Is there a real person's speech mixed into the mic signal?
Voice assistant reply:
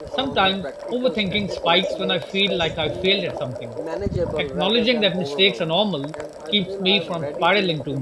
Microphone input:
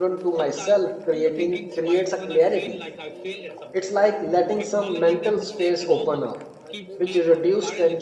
Yes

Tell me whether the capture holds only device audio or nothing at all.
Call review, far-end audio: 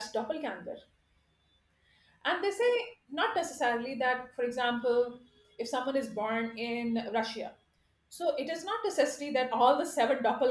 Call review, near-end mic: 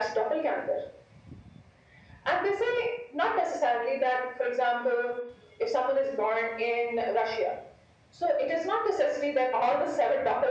Yes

